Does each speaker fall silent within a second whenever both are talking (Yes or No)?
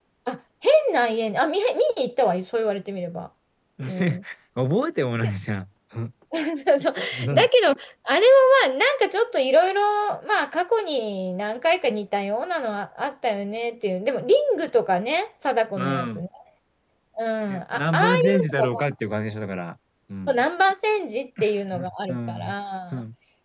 No